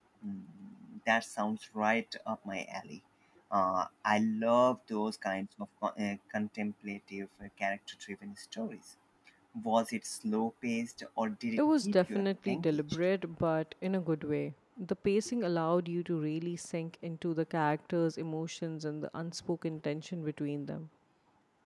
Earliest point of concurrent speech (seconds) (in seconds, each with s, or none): 11.6 s